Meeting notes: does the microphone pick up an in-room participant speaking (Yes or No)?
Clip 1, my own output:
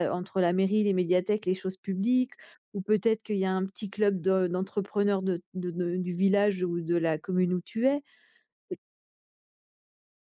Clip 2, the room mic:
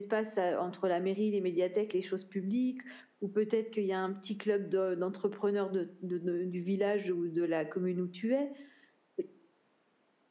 No